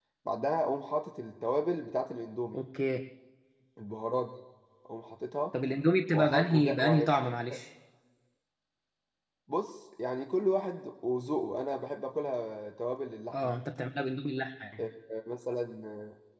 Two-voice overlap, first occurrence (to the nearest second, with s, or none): 6 s